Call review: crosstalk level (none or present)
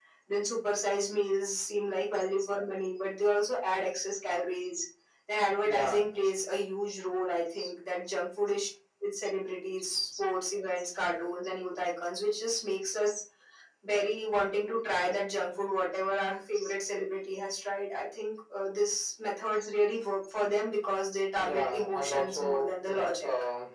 present